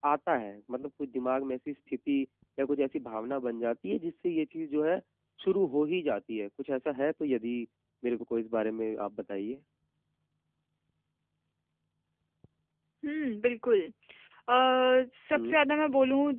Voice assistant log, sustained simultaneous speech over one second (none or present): none